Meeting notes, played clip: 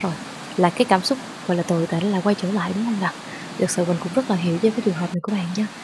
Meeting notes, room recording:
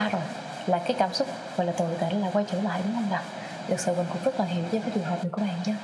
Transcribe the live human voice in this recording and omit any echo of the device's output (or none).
none